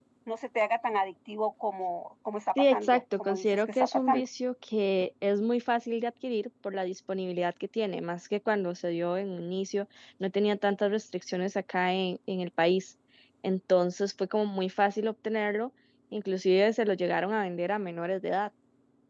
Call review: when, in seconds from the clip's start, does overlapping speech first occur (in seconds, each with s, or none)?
2.6 s